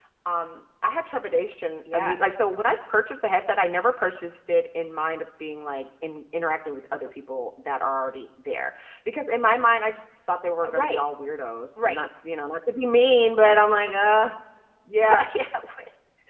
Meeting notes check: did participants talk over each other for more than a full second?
No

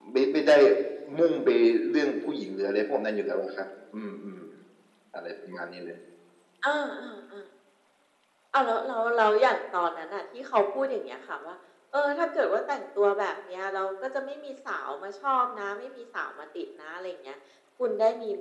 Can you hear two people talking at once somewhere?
No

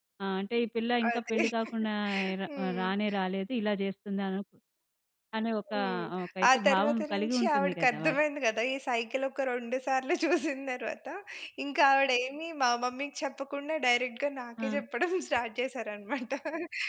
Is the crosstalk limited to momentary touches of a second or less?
No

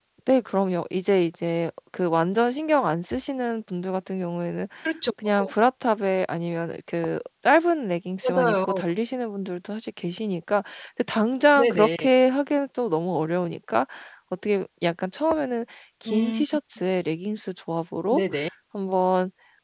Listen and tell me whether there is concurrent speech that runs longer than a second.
No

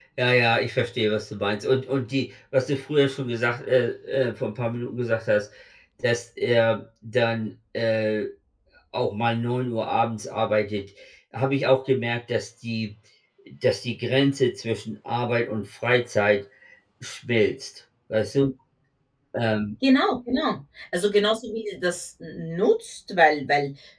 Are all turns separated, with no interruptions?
Yes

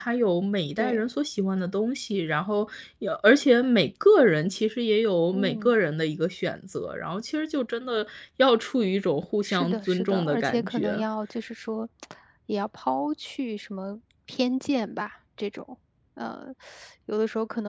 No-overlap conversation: No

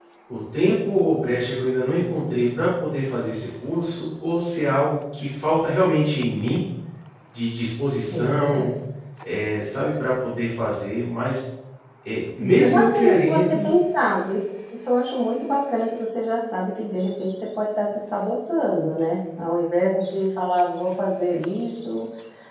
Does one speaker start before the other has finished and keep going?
Yes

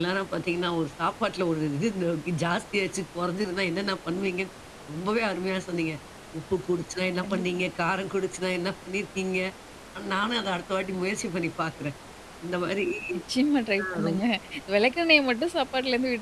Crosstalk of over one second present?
No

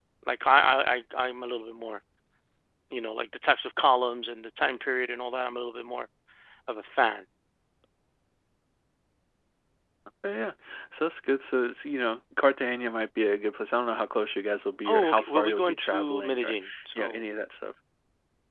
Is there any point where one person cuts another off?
Yes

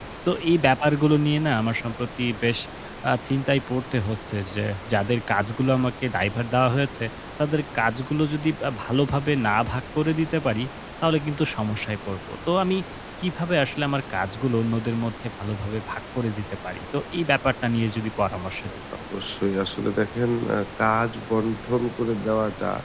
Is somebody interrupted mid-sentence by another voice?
No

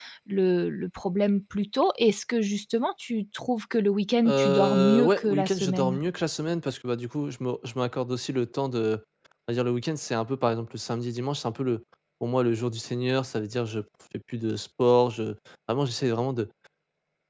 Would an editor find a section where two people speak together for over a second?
Yes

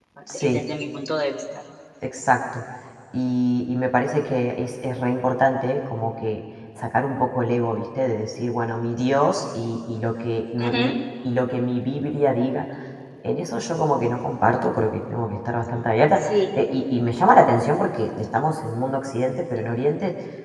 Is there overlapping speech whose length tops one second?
No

